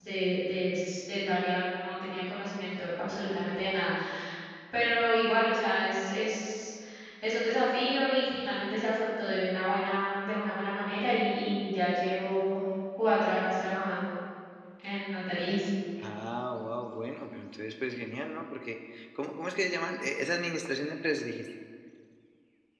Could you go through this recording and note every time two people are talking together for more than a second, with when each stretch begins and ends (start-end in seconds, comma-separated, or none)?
none